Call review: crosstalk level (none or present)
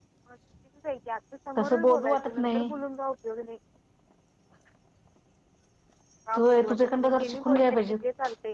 present